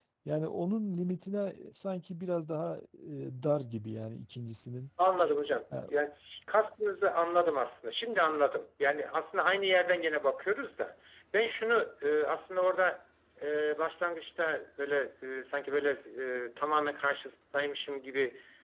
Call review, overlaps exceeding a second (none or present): none